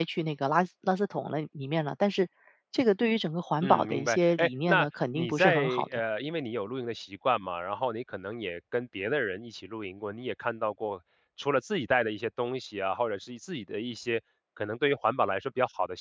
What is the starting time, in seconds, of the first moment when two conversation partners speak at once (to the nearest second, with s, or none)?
4 s